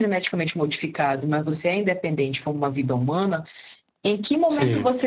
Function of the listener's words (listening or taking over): listening